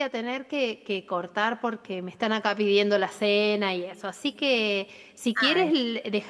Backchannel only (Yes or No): Yes